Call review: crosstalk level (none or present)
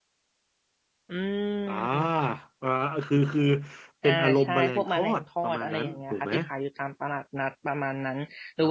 present